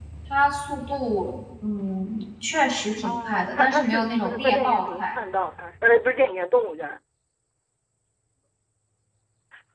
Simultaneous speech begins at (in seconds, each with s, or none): 3.0 s